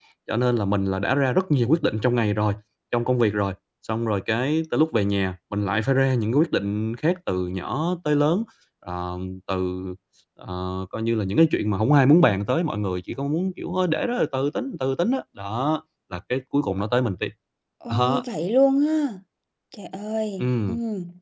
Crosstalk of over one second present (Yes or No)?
No